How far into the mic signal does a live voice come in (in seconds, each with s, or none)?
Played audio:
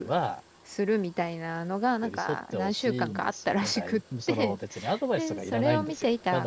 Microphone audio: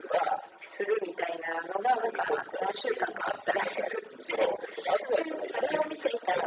none